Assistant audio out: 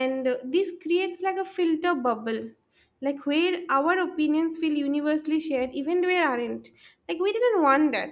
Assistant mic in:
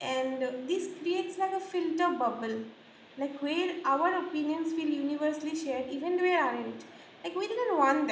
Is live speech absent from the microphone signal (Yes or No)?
Yes